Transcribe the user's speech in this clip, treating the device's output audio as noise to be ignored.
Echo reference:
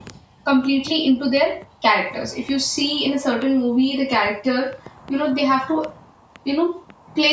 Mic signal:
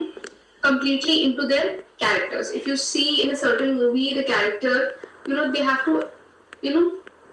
none

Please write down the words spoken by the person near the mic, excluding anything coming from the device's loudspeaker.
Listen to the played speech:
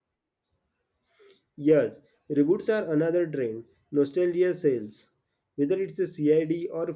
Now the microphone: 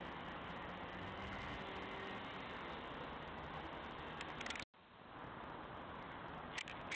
none

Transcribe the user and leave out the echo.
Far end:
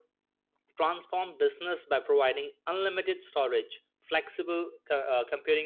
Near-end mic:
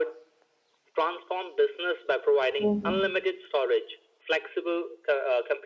hmm

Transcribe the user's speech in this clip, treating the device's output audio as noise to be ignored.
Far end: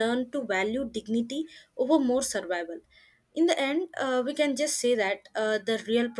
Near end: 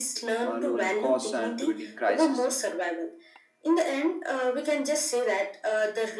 uh, lowering costs and preventing crisis

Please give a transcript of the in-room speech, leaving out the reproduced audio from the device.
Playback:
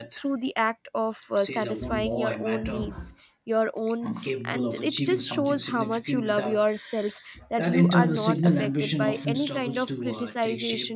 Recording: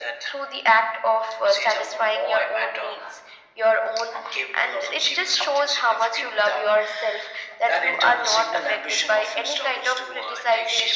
none

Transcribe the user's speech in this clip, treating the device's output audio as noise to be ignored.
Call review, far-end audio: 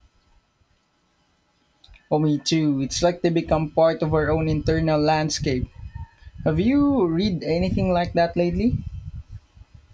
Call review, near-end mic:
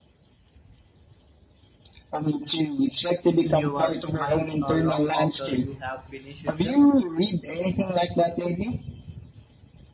in your mind uh, long after you have finished them.

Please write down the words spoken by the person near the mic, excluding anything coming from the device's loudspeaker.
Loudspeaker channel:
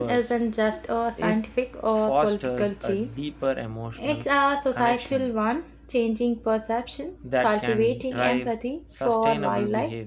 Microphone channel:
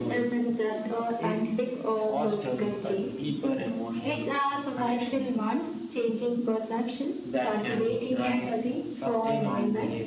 none

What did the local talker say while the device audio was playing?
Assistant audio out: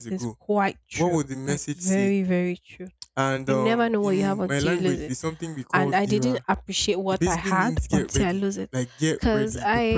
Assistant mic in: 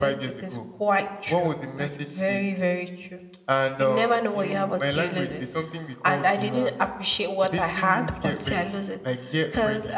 none

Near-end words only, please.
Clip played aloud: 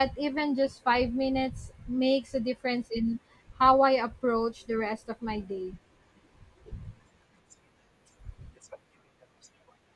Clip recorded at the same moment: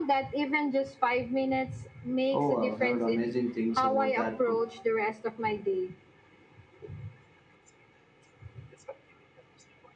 Oh, I've heard amazing things about that book.

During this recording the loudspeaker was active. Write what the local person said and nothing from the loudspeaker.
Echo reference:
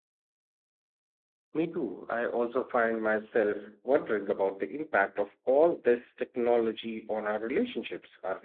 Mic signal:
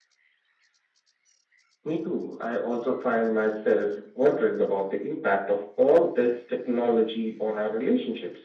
none

